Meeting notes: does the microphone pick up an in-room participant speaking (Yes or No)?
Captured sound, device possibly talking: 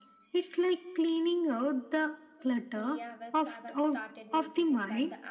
Yes